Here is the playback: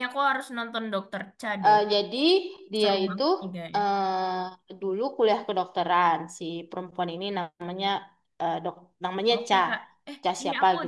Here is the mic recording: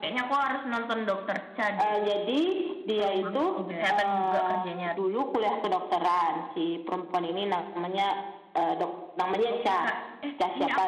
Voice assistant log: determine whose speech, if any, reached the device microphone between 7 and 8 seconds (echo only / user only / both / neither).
echo only